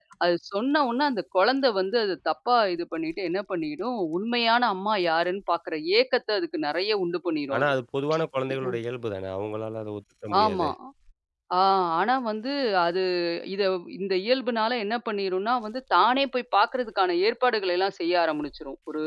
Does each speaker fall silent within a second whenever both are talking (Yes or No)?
Yes